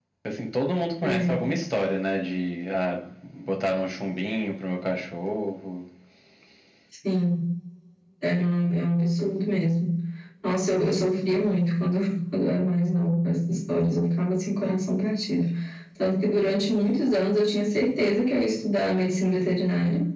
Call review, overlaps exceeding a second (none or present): none